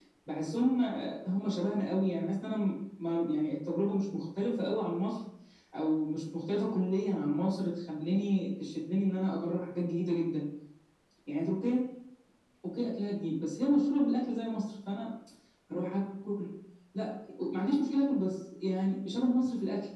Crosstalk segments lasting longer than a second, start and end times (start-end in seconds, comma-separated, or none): none